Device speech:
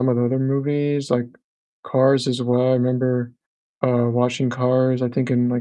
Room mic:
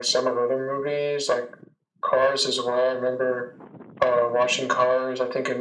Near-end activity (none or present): none